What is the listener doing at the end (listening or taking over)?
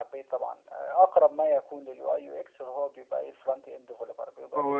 taking over